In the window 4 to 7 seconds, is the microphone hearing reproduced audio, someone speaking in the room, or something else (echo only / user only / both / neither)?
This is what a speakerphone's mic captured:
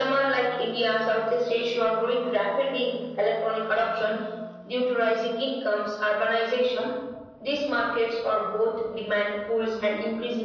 echo only